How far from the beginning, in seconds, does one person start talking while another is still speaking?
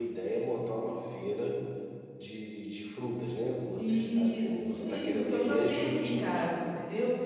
3.8 s

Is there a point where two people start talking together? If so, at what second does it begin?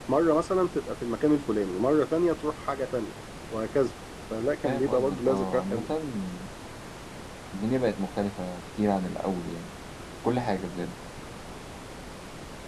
4.6 s

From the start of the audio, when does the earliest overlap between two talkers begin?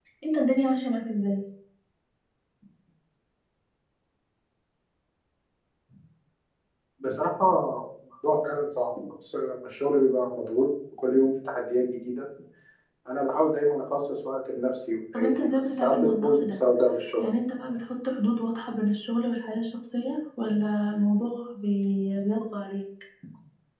15.1 s

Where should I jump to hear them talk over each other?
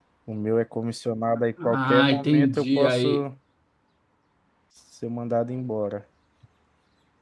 1.6 s

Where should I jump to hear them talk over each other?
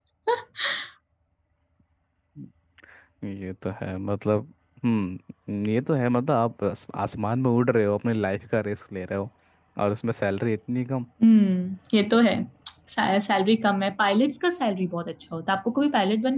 none

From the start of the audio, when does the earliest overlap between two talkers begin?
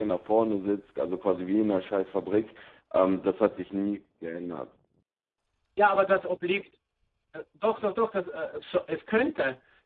none

